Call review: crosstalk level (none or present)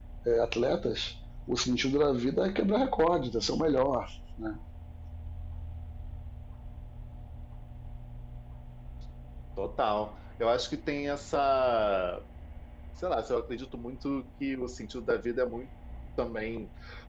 none